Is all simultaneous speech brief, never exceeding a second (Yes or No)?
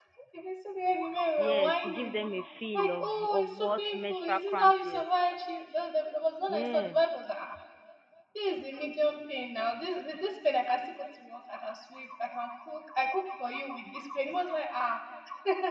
No